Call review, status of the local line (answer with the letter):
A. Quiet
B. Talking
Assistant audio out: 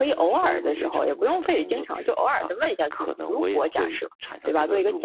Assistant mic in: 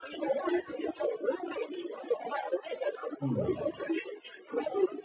B